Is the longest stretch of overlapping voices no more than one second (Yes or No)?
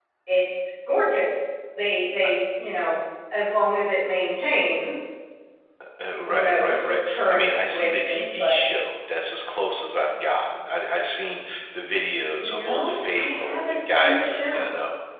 No